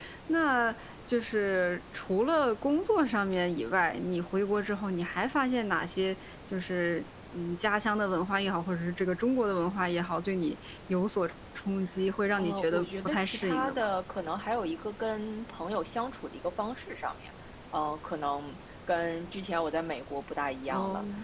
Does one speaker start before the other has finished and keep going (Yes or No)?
Yes